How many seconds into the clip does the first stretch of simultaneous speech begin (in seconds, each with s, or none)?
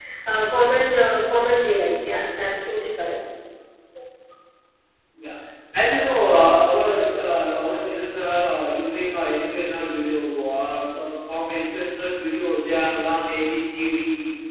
none